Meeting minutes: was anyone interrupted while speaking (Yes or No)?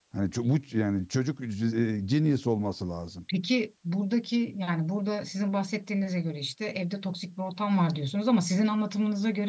No